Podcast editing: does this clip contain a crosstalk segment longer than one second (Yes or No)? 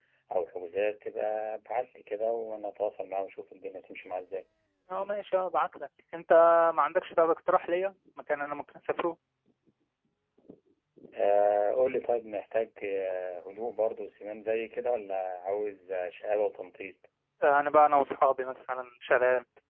No